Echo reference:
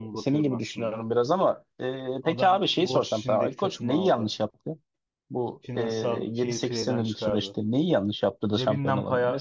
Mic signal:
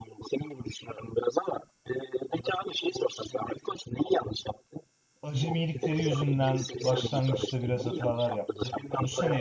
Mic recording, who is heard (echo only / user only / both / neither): both